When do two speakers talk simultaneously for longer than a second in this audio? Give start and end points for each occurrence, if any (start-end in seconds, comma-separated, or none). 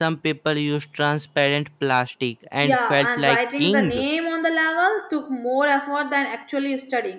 2.6-4.0